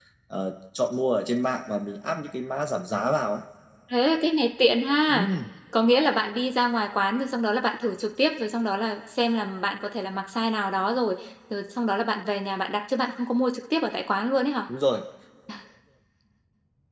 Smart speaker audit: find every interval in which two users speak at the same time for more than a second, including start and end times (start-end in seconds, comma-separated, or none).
none